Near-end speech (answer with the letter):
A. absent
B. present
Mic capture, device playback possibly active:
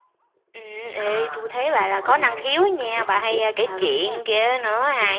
B